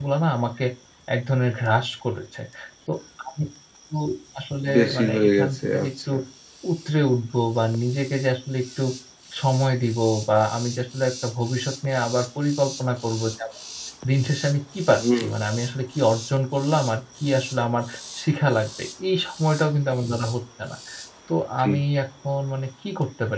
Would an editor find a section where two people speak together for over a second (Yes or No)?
Yes